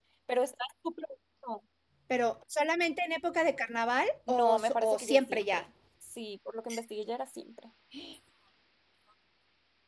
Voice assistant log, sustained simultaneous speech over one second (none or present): present